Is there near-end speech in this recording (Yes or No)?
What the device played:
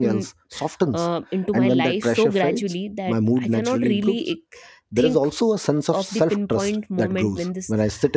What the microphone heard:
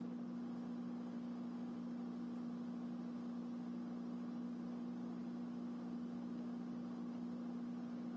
No